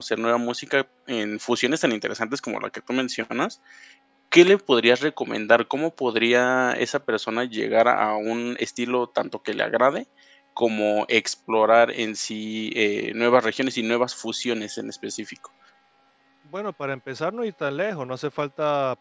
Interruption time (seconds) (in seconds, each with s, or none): none